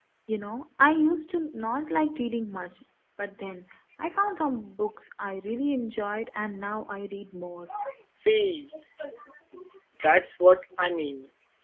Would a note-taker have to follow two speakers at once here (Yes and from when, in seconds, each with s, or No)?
No